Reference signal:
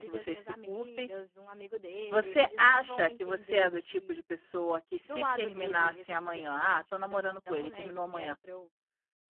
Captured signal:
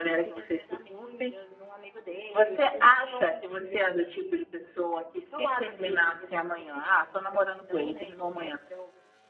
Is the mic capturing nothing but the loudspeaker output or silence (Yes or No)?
Yes